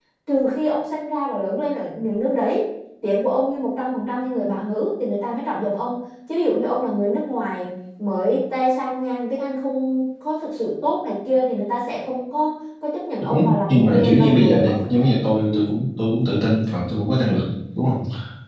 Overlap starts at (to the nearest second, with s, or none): 13 s